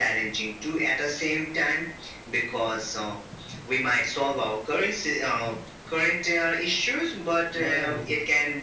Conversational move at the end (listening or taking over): listening